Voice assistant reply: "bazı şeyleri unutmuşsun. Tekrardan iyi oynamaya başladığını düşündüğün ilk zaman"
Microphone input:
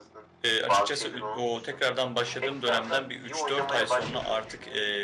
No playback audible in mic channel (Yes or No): No